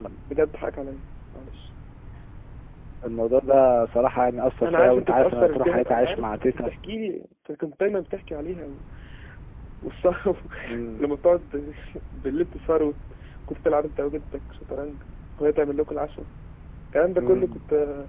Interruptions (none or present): present